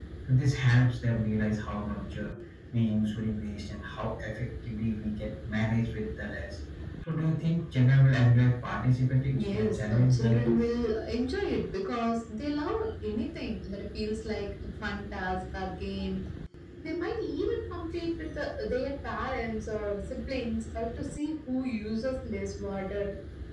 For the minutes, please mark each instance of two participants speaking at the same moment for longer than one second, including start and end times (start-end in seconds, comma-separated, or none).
9.3-10.6